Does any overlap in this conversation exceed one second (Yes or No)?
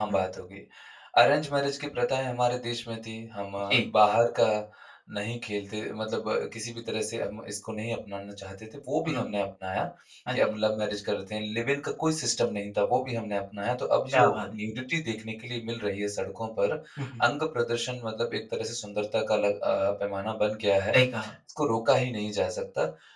No